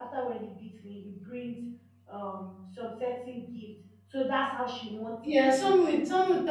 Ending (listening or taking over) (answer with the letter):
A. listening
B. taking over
B